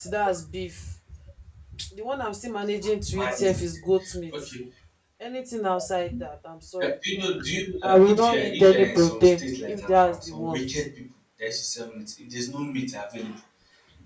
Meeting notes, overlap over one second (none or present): present